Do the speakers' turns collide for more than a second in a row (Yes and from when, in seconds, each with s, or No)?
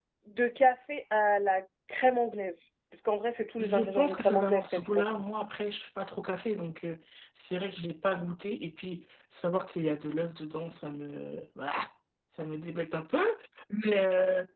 Yes, from 3.6 s